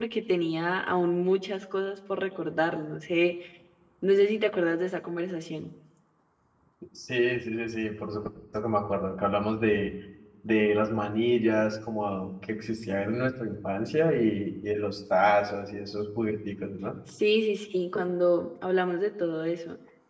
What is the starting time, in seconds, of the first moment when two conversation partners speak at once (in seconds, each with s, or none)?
none